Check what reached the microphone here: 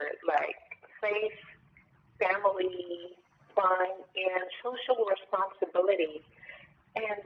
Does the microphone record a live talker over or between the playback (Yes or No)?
No